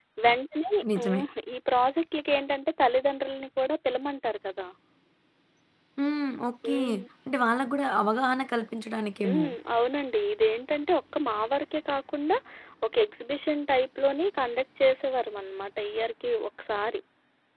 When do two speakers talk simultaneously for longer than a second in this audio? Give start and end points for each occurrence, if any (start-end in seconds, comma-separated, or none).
none